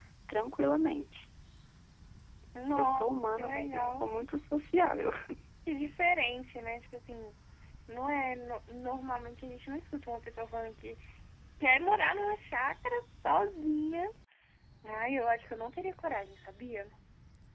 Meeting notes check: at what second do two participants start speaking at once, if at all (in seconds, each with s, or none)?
2.7 s